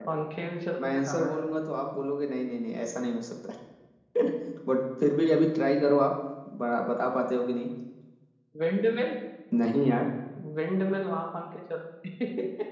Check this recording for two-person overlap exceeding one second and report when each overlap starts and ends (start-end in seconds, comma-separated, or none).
none